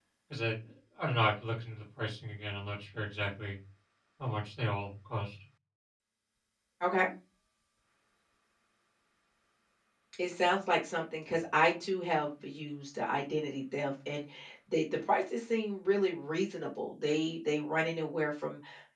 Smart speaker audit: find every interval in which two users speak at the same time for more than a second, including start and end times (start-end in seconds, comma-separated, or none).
none